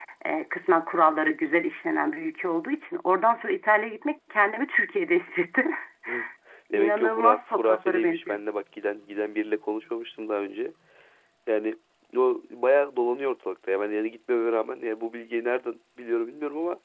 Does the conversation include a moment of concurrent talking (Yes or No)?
Yes